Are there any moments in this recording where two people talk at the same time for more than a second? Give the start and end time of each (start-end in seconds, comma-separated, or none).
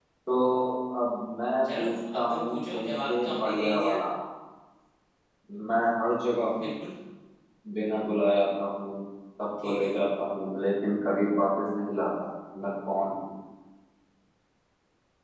1.8-4.0